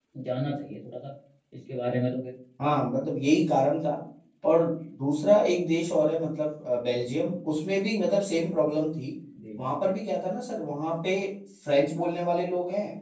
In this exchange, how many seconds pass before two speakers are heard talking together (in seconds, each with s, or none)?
none